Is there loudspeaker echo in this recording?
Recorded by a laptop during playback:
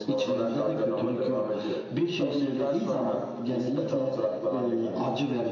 Yes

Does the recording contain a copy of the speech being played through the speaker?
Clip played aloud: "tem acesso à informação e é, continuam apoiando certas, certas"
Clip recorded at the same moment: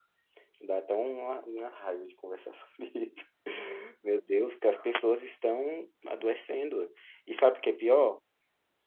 No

